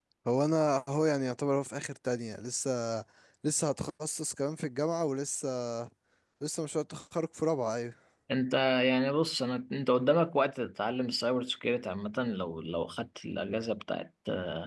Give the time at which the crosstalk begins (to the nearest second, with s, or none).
none